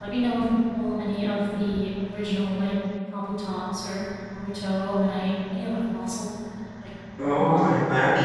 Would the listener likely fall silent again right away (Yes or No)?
No